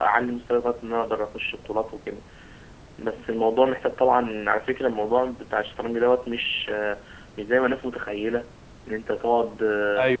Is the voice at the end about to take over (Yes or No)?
No